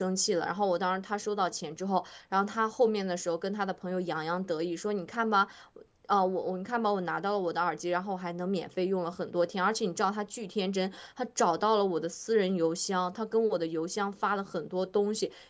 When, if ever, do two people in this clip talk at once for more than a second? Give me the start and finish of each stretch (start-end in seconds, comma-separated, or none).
none